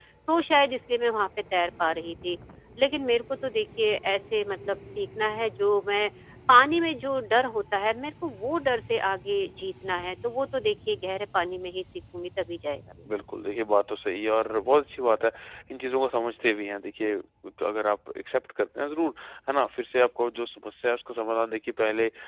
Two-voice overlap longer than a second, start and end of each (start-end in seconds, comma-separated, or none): none